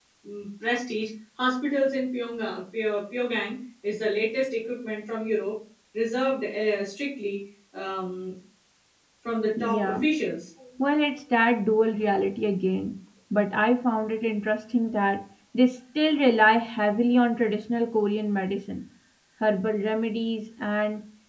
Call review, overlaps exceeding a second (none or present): none